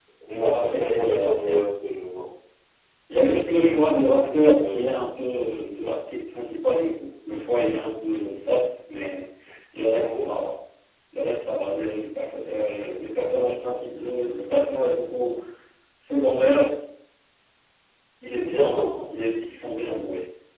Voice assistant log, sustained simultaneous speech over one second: present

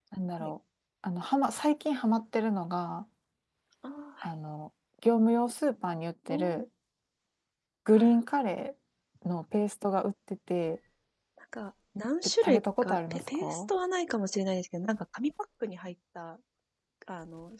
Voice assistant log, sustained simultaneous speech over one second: present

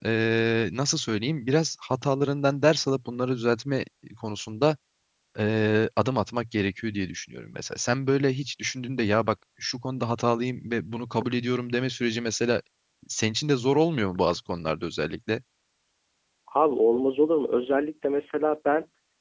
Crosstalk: none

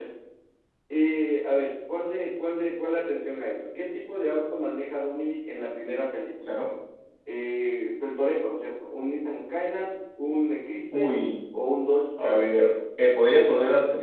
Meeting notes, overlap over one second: none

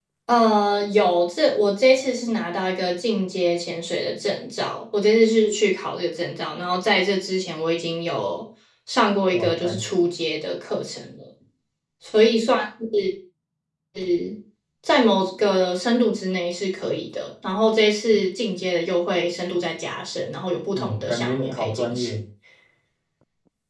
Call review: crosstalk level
present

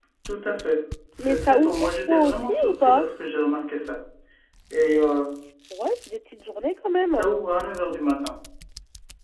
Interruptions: present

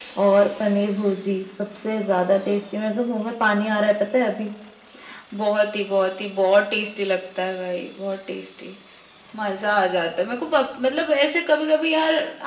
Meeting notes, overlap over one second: none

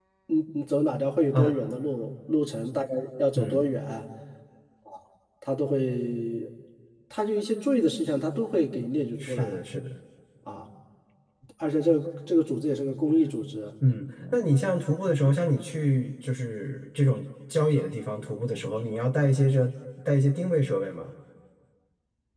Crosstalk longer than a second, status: none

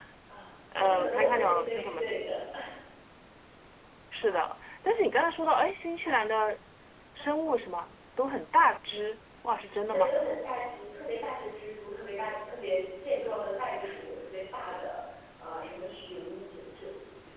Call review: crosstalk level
present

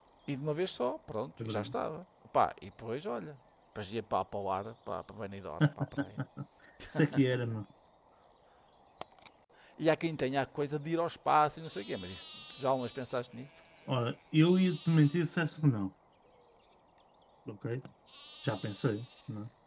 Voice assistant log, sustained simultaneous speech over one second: none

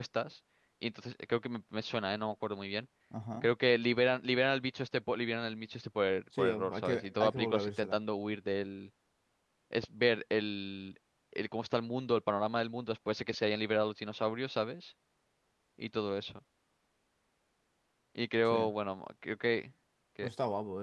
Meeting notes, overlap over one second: present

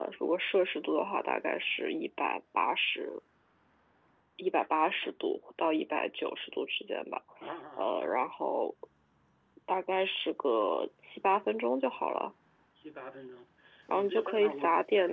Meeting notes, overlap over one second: present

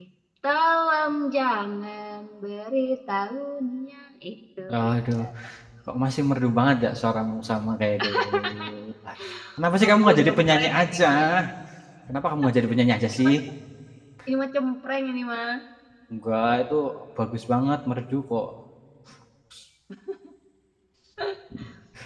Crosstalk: present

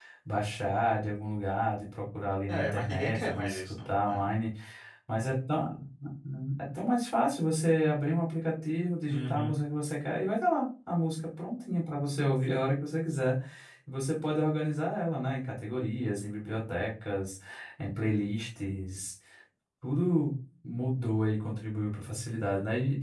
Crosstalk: present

